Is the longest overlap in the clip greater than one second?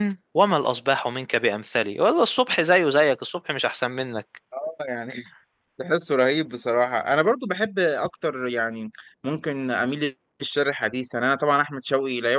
No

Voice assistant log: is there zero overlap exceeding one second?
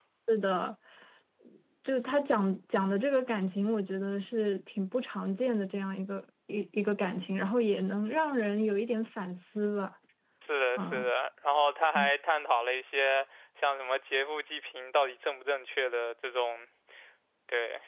Yes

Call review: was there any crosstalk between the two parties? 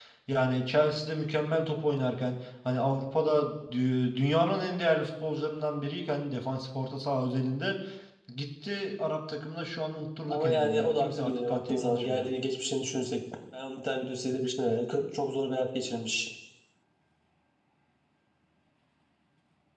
Yes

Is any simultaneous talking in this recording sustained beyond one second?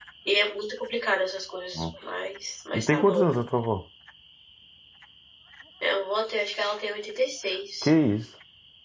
No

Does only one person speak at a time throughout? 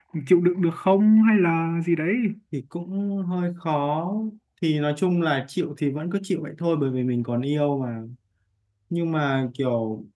Yes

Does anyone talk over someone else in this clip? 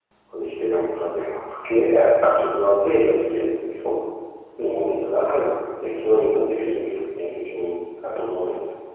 No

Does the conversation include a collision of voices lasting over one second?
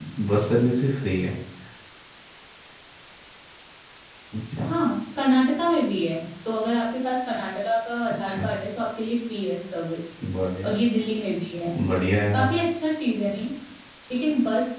No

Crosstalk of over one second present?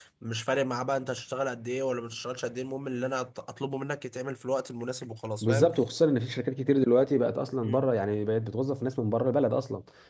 No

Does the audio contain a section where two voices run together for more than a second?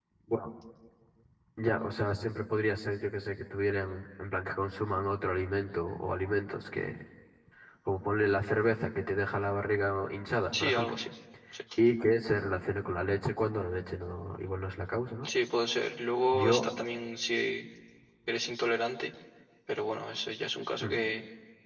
No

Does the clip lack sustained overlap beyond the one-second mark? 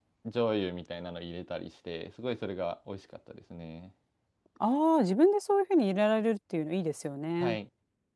Yes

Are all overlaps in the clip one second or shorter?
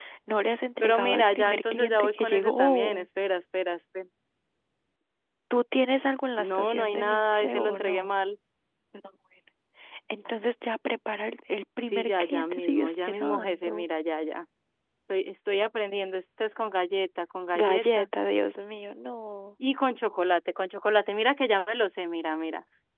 No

